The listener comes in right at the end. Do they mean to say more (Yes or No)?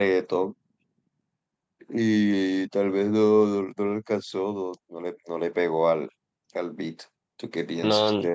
Yes